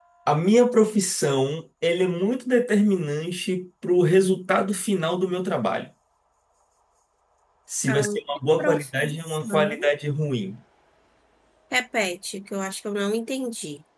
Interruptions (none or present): present